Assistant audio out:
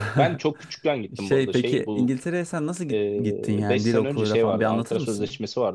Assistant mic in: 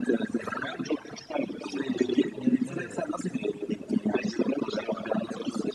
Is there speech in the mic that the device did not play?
Yes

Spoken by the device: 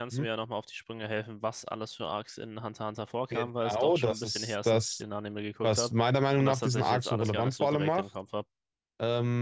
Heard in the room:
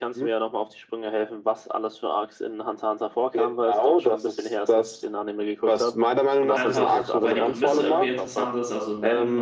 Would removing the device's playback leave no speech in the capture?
No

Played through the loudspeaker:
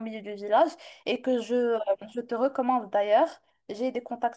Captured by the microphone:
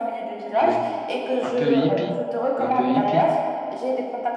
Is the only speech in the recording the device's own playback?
No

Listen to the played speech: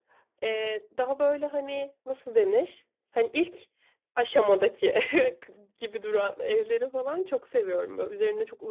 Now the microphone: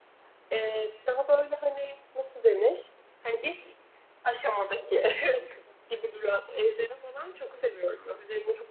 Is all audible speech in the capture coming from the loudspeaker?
Yes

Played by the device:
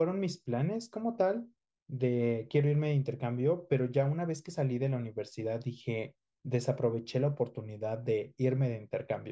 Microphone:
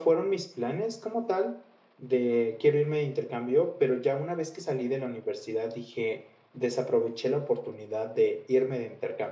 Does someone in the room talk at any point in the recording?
No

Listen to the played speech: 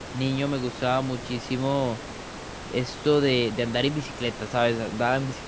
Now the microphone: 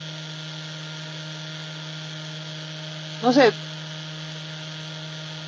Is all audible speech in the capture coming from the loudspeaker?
No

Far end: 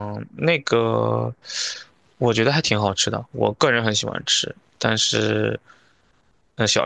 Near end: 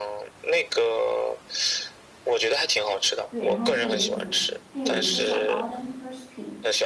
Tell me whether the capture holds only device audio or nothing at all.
No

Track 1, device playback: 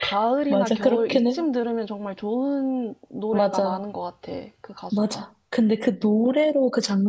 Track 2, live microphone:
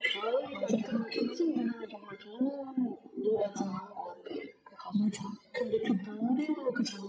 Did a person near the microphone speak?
No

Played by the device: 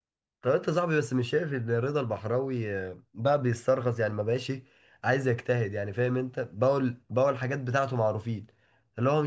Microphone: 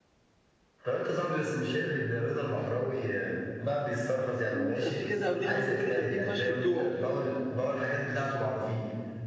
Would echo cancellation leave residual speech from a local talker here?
Yes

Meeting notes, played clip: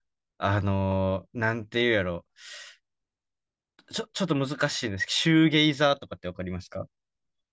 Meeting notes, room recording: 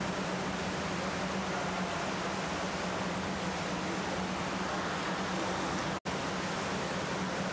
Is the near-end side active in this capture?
No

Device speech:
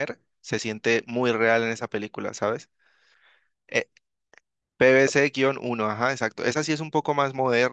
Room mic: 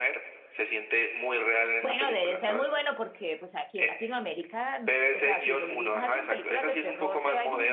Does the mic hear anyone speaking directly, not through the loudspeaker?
Yes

